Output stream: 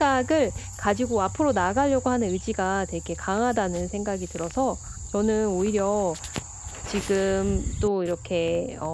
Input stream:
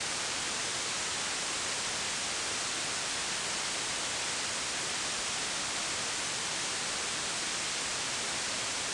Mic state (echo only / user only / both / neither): neither